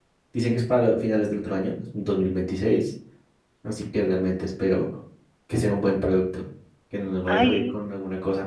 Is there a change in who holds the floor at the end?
No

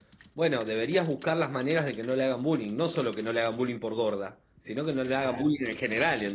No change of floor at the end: Yes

